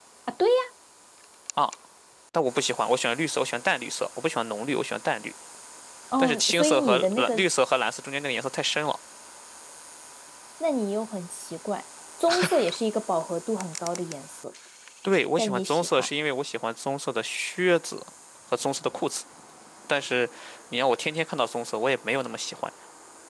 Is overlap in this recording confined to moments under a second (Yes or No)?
No